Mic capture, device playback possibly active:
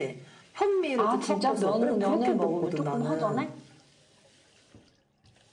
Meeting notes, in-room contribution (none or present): present